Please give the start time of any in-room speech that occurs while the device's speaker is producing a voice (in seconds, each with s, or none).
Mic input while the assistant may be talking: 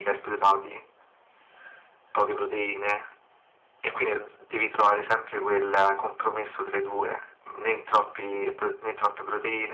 none